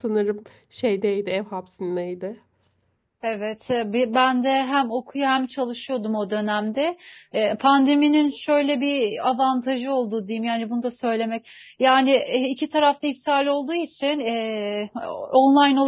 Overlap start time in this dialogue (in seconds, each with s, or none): none